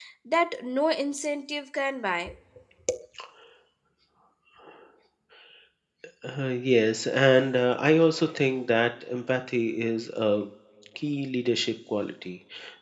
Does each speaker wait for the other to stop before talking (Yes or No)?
Yes